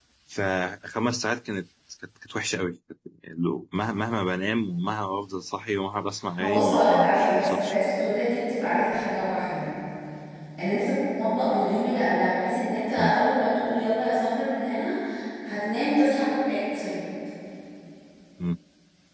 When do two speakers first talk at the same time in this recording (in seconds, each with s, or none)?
6.4 s